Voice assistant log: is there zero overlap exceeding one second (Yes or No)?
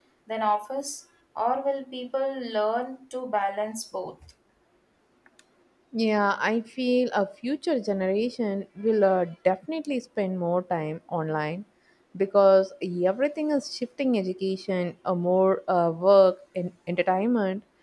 Yes